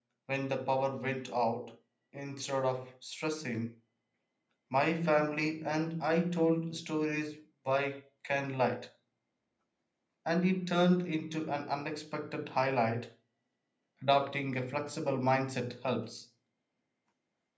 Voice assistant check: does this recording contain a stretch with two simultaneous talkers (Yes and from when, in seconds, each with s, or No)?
No